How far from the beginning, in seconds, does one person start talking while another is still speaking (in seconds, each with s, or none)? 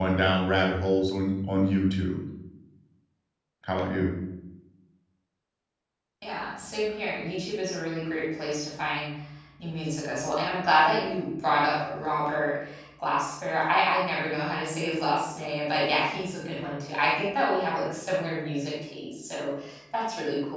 none